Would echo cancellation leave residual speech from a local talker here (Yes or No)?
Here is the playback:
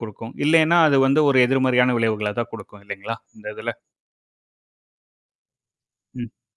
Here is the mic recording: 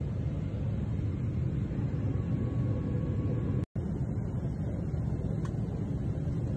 No